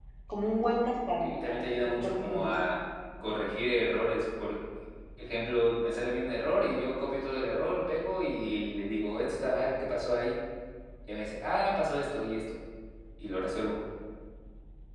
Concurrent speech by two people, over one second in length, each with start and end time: 1.2-2.5

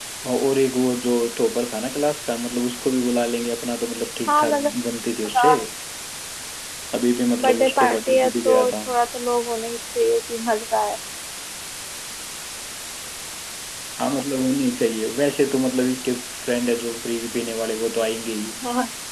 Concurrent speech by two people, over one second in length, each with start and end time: 7.4-8.7

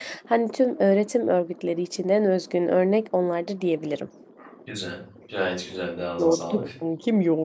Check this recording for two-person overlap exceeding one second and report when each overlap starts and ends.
none

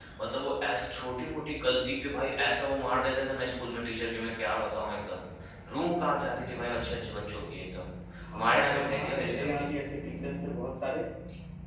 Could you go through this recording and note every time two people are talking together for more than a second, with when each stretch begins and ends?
8.3-9.7

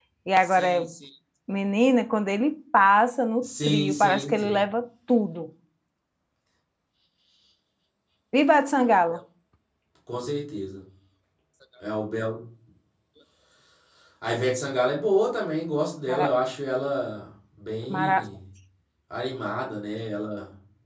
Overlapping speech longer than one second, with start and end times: 3.4-4.6

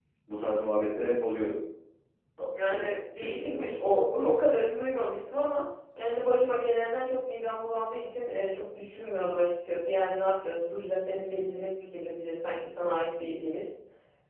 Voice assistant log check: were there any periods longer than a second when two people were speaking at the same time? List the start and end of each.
2.6-4.0

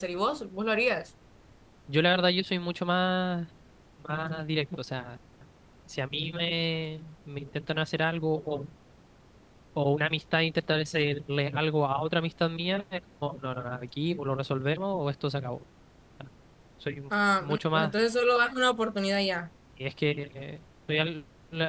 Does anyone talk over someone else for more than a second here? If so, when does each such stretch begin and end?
none

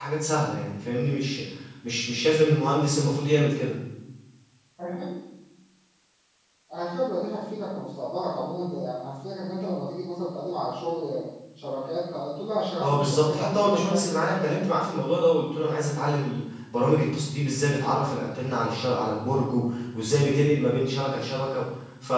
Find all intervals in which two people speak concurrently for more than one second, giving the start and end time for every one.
12.8-14.7

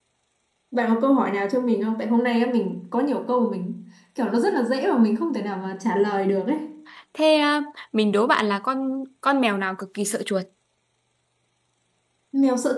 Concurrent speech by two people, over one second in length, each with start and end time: none

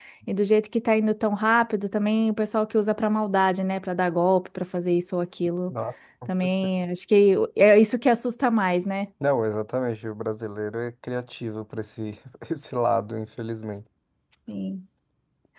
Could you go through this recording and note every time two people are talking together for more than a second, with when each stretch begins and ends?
none

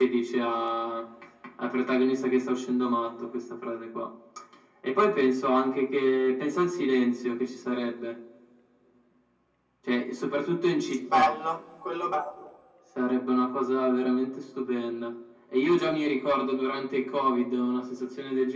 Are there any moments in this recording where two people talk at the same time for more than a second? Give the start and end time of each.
none

